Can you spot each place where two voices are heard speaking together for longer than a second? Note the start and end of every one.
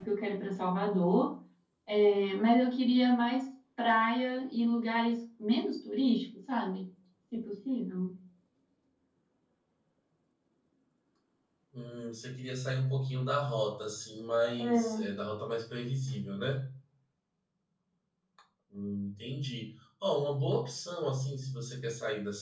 none

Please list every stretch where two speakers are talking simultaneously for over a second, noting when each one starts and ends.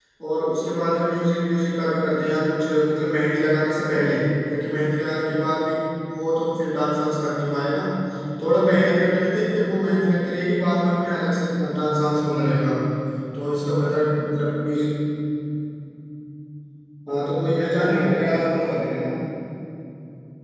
none

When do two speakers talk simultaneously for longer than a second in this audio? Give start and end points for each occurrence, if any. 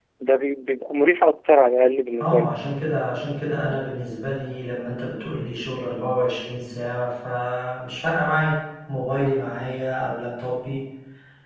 none

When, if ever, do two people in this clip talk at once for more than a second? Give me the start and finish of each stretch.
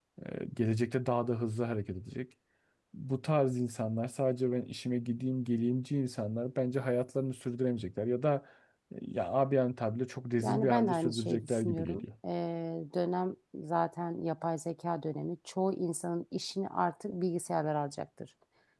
10.4-12.0

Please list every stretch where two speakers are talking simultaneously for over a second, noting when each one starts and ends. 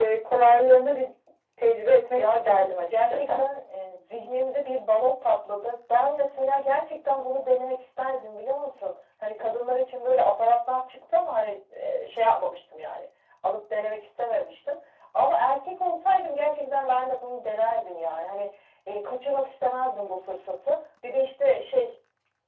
2.1-3.4

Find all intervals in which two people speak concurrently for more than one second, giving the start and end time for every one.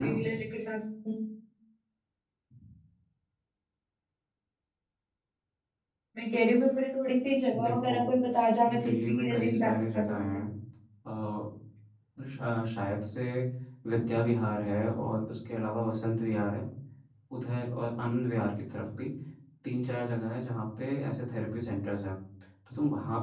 8.7-10.3

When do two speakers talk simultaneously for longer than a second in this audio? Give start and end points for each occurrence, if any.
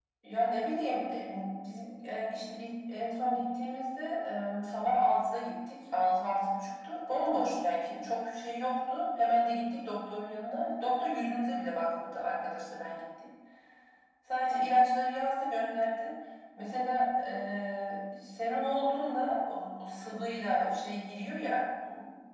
none

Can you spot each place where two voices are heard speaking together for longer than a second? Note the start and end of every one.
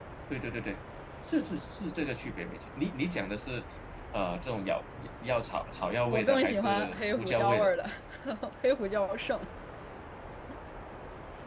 6.1-7.7

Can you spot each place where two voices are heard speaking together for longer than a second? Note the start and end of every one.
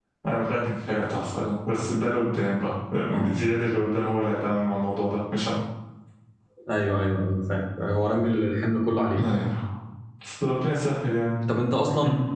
none

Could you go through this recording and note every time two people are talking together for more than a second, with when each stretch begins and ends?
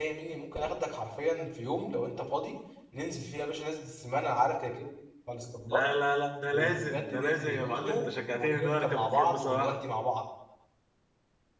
6.5-9.8

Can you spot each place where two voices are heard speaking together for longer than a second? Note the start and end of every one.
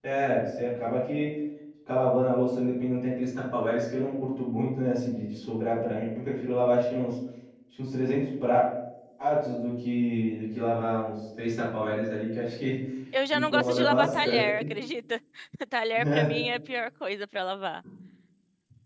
13.3-14.6

